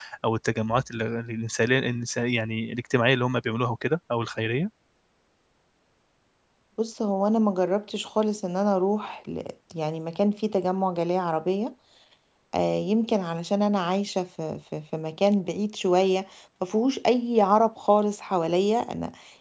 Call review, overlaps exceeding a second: none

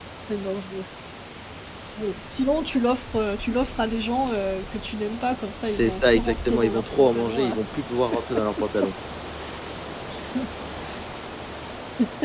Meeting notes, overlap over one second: present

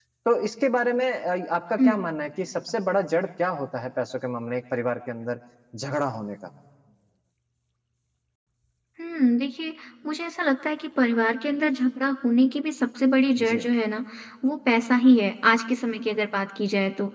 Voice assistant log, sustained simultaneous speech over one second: none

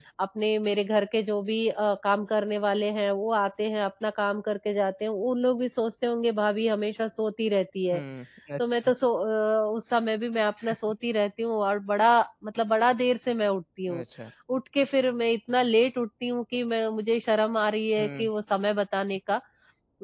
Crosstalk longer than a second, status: none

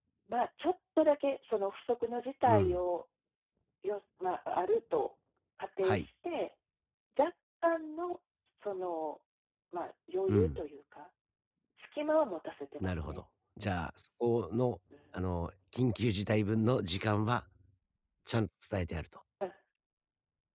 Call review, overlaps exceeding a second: none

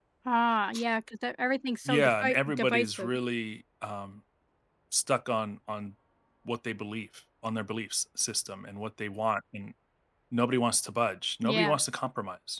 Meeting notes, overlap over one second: present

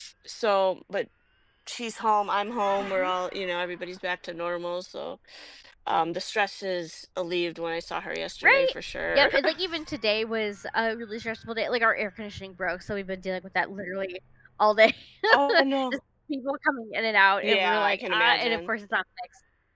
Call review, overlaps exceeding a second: present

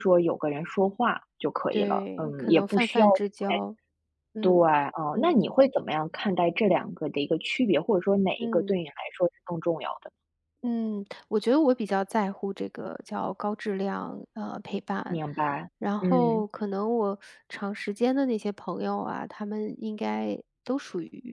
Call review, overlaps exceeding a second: present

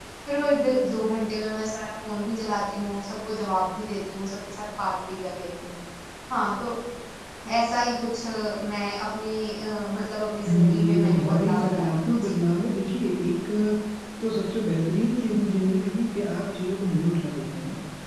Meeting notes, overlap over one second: present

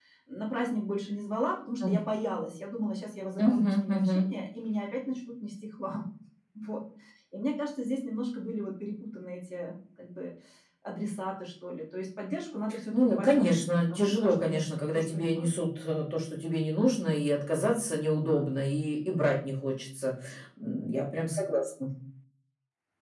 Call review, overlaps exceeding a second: present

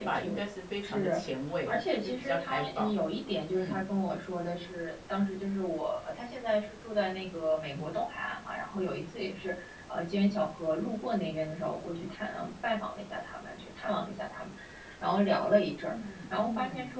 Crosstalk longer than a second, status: present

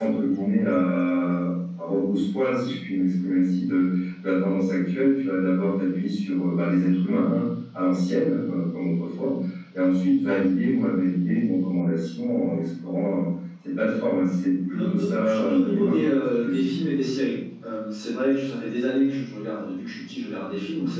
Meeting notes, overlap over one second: present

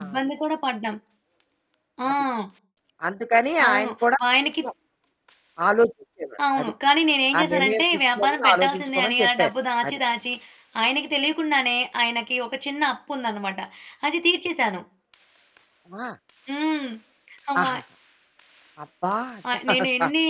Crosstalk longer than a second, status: present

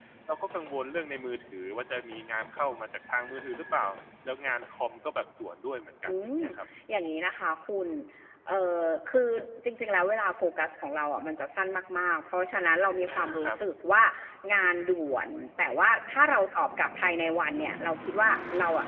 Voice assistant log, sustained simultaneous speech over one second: none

